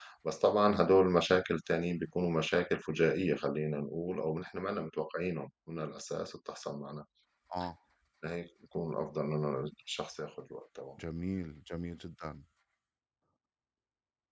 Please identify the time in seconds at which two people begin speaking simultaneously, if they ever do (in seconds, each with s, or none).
none